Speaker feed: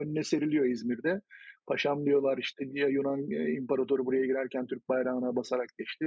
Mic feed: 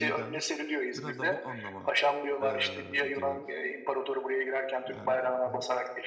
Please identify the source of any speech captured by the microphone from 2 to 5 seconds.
both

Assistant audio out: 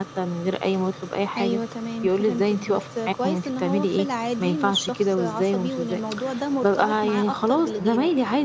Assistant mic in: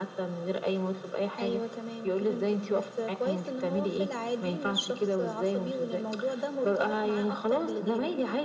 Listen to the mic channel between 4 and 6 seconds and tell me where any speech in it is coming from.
echo only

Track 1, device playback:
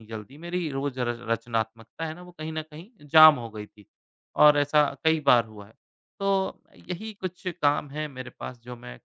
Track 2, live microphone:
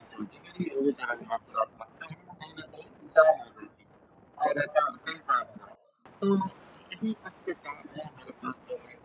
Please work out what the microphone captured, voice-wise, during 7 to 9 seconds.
echo only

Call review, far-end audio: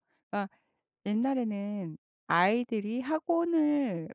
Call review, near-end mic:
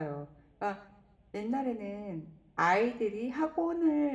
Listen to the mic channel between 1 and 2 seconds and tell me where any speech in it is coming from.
echo only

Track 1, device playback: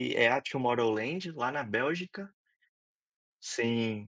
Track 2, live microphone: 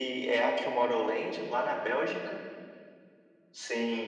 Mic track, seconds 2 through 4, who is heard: echo only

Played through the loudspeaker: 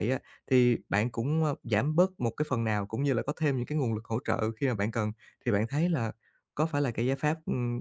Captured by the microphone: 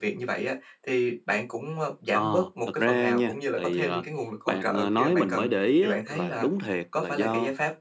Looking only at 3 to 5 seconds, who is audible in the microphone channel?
both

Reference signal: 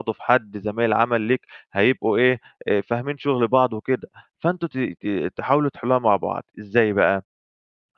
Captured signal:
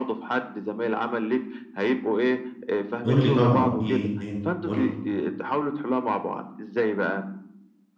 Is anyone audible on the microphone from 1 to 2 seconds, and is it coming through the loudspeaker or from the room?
echo only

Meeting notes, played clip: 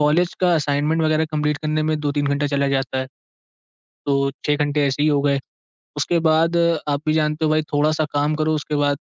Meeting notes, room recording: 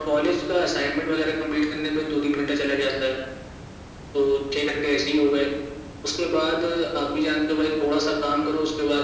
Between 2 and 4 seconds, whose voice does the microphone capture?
echo only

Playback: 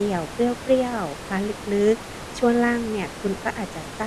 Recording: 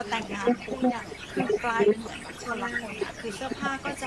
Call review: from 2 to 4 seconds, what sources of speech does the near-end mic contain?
both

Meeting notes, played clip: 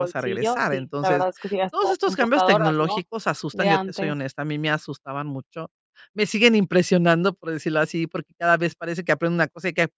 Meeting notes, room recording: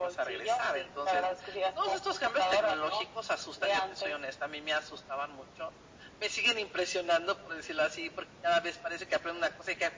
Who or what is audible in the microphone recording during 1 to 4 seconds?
echo only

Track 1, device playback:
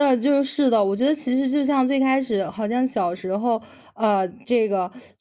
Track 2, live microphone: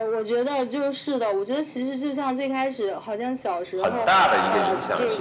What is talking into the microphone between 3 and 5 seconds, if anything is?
both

